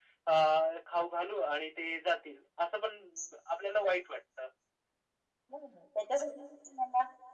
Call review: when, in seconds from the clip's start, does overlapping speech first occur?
none

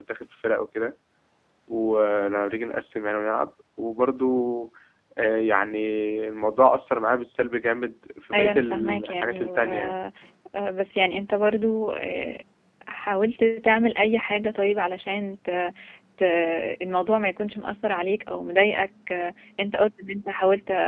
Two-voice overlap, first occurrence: 8 s

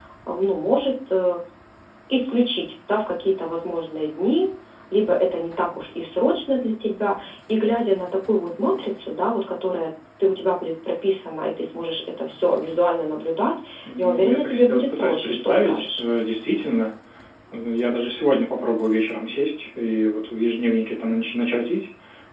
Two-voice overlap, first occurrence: 14 s

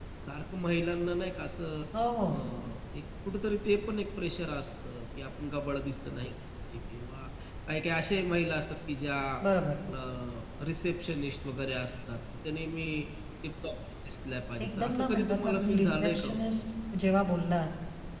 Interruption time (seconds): 15 s

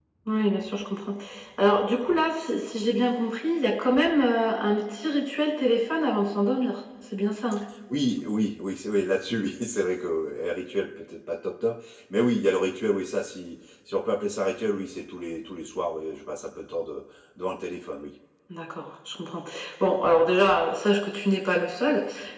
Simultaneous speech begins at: none

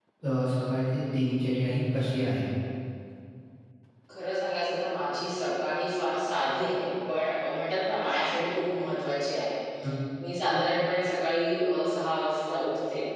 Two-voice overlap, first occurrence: none

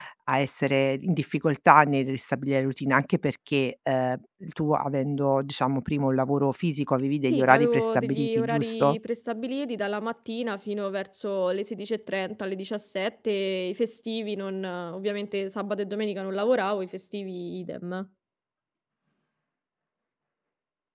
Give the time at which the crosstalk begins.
7 s

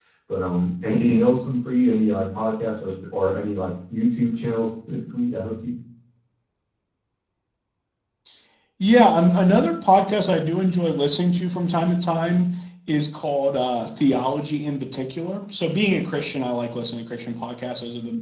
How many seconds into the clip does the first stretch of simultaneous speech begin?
none

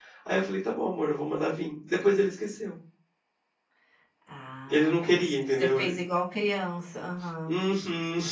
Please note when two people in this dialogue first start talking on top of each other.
5 s

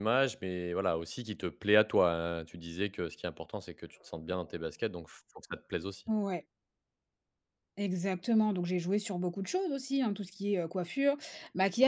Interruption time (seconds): none

